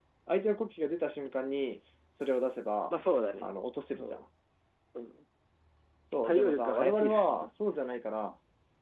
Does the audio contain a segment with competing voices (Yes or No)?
Yes